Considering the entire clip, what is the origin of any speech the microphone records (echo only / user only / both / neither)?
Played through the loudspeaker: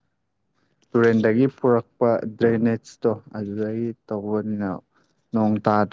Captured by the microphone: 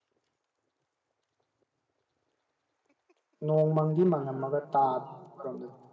user only